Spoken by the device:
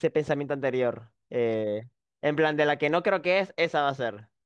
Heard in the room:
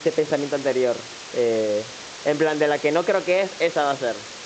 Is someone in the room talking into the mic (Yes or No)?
No